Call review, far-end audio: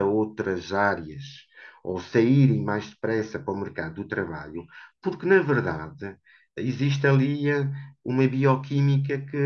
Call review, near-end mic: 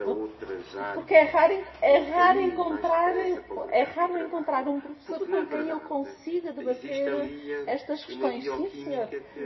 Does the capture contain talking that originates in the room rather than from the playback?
Yes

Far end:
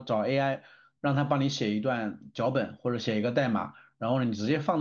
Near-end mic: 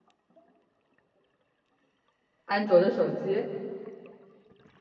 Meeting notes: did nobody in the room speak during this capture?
No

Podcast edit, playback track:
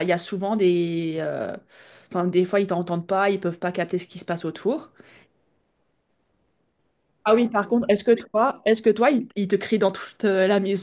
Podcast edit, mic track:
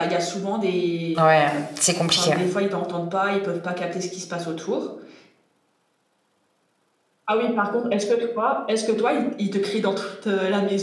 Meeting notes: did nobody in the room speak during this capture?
No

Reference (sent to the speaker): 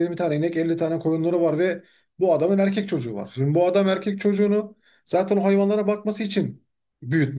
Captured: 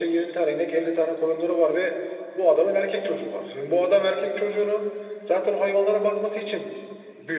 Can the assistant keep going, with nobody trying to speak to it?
Yes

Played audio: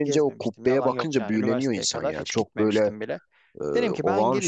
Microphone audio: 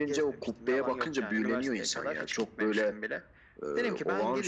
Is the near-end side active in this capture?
No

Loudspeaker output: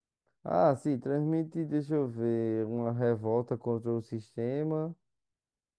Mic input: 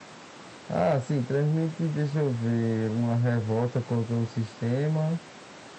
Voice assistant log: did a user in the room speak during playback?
No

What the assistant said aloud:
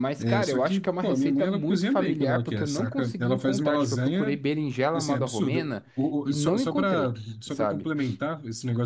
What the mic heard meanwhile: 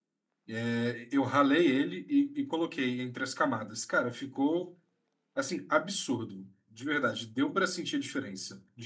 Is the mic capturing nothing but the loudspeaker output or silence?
No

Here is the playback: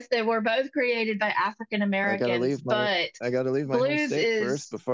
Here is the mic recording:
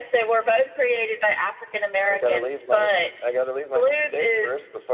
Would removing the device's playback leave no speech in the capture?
Yes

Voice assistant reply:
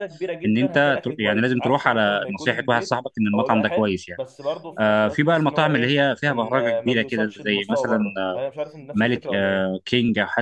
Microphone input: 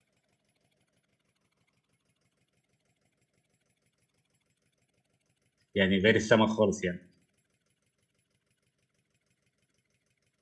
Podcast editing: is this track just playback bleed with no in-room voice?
No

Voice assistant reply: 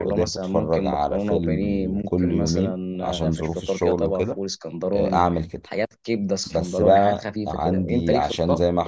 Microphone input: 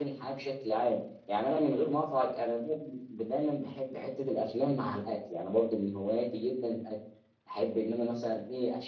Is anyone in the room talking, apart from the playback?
Yes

